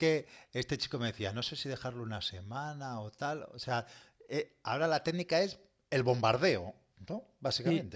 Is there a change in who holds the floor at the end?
Yes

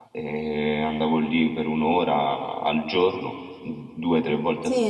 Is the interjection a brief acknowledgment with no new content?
No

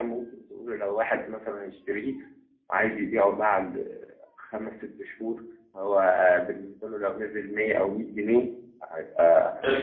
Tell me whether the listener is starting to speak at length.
No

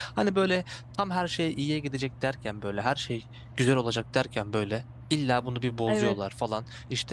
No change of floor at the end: Yes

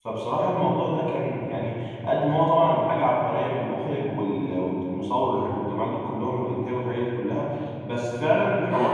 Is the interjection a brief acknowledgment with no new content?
Yes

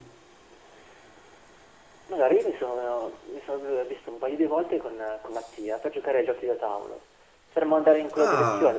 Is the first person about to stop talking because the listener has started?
No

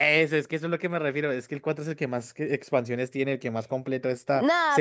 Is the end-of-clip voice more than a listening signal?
Yes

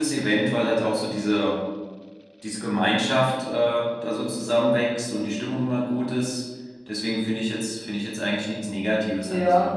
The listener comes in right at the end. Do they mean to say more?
Yes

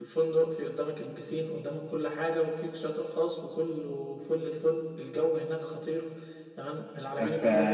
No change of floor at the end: Yes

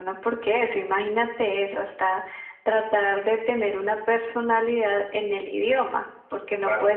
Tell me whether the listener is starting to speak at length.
No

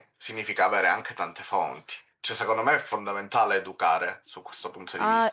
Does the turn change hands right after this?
Yes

